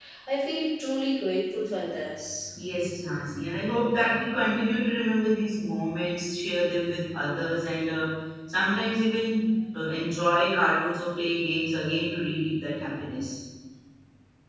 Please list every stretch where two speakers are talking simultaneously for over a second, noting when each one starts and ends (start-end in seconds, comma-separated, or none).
none